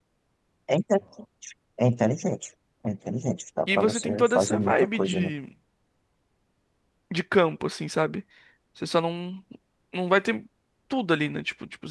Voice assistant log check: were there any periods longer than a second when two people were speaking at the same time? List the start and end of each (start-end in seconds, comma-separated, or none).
3.7-5.3